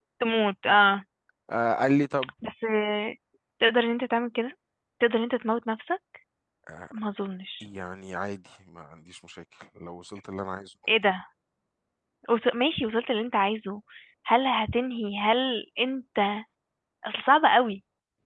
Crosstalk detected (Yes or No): No